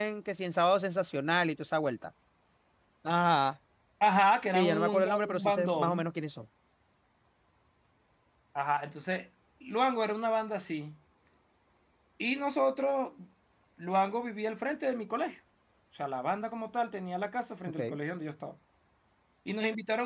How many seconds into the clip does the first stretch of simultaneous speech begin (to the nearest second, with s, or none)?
5 s